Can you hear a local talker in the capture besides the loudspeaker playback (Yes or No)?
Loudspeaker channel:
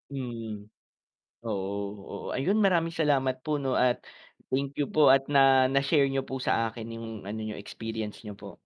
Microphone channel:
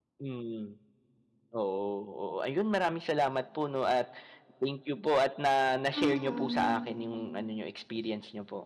Yes